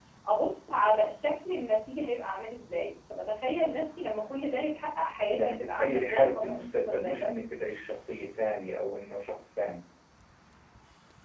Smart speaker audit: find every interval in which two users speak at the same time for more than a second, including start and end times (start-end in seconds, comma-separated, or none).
5.3-7.3